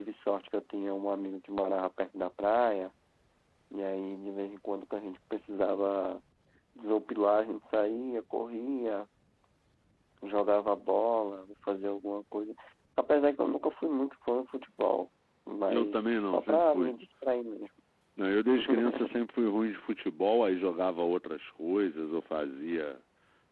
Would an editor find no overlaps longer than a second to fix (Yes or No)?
No